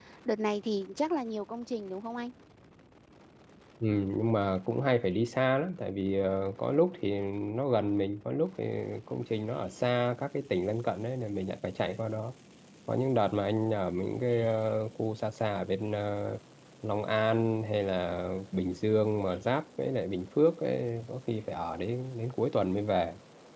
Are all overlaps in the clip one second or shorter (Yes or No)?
Yes